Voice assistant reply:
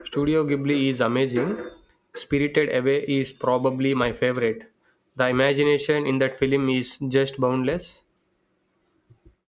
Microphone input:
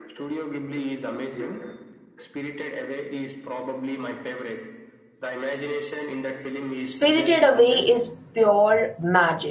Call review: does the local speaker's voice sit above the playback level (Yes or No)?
Yes